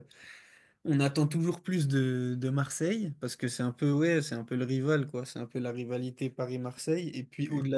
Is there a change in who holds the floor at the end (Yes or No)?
No